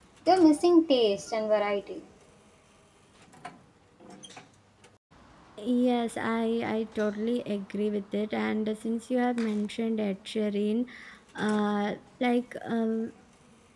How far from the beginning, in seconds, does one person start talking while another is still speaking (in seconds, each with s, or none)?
none